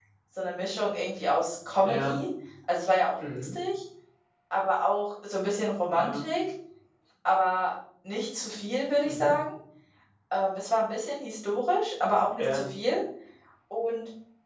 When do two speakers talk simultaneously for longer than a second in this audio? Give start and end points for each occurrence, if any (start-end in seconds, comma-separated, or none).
none